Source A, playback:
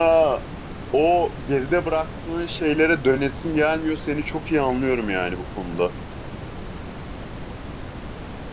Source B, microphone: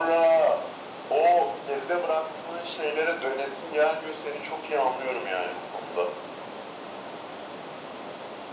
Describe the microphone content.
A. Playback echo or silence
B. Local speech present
A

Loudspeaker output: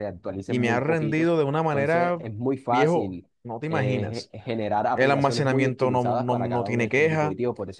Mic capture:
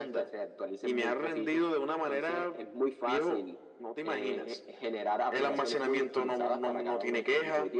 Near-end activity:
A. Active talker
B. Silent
B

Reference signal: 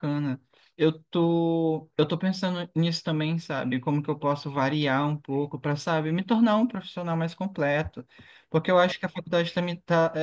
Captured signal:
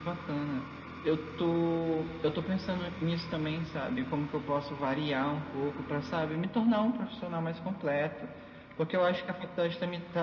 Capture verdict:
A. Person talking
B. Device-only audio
B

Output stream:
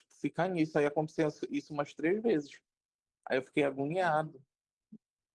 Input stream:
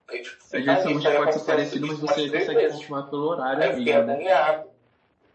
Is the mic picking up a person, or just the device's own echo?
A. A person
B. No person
A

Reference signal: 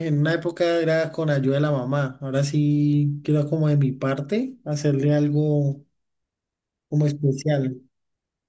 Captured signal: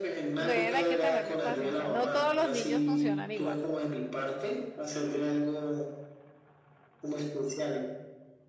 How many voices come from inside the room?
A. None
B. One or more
B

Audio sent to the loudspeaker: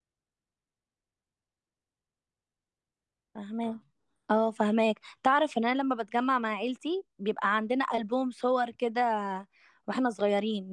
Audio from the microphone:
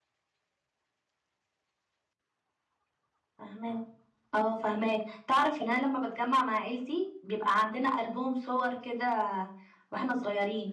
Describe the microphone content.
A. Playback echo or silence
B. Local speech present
A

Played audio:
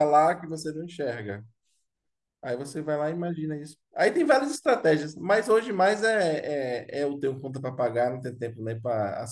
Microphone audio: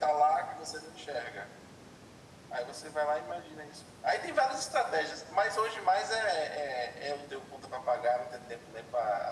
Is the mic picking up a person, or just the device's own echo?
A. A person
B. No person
B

